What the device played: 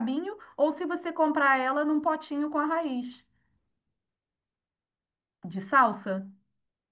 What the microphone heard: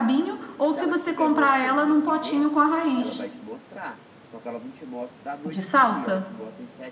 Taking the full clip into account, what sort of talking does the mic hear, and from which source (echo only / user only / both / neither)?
both